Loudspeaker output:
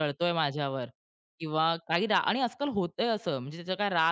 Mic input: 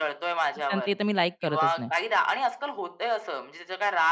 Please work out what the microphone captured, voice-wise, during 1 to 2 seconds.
both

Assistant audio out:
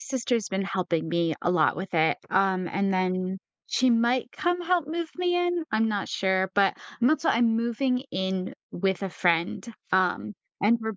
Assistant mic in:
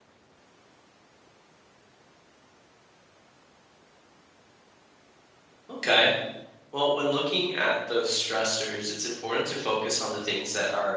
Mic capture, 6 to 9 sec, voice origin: user only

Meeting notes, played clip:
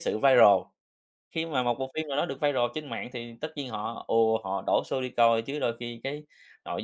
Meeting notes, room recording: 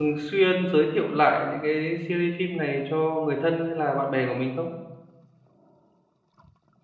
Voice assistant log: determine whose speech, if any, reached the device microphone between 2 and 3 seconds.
user only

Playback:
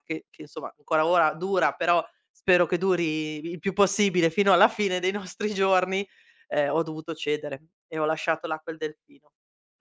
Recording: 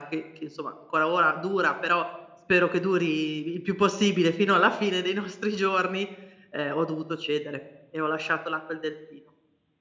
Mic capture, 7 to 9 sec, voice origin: echo only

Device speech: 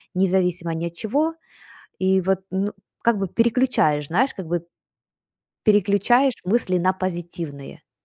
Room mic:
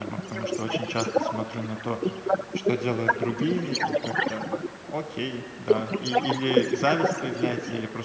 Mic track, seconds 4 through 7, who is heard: both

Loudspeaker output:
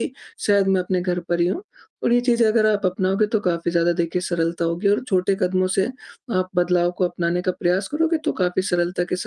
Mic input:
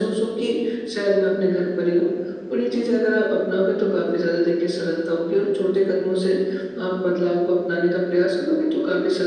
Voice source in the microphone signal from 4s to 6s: echo only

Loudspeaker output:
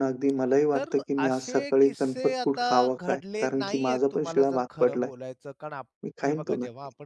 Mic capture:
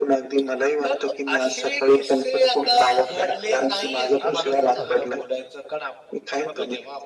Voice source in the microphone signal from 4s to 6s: both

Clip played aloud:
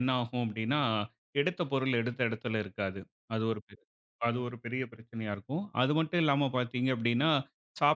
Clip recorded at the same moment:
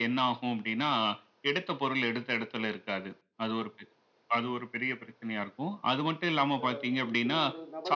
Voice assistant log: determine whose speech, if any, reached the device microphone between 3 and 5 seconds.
echo only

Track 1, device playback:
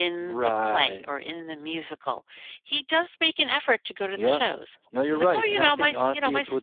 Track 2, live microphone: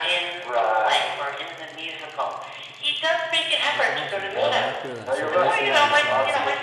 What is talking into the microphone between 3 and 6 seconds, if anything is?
both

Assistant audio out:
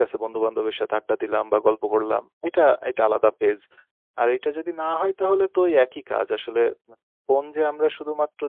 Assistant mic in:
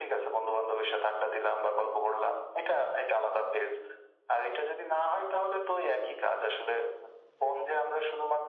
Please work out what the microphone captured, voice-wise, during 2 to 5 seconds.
echo only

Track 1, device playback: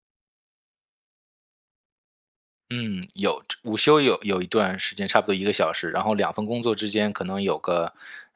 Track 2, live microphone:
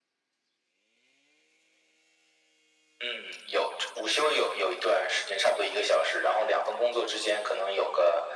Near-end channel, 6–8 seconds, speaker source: echo only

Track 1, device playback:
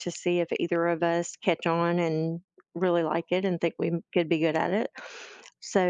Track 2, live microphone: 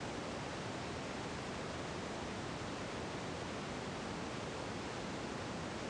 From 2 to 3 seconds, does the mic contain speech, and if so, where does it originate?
neither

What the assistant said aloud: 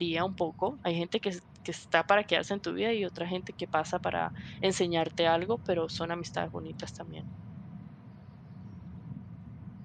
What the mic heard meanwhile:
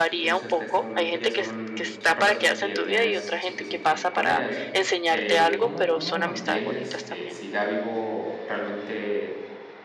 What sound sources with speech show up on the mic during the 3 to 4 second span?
both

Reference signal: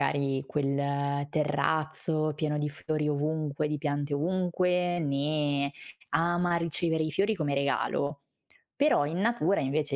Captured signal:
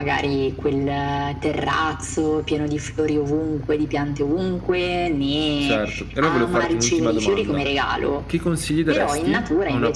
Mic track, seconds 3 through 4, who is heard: echo only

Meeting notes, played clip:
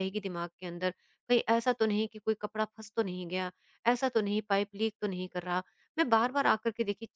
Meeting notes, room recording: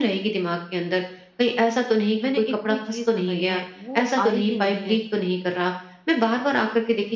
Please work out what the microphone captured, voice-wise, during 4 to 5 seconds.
both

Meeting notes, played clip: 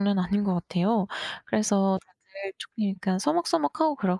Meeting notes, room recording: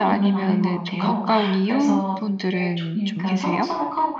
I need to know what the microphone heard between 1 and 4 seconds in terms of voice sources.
both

